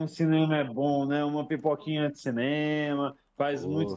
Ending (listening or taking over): taking over